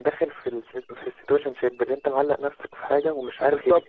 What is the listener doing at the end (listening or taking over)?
taking over